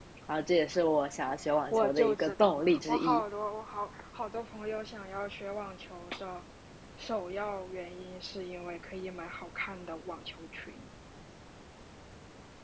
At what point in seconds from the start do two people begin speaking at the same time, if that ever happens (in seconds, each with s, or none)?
1.7 s